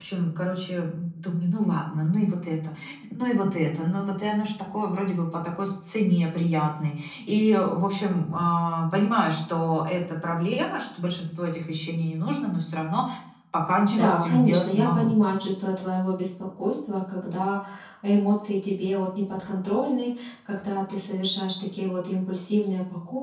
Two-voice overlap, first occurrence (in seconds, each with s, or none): 13.9 s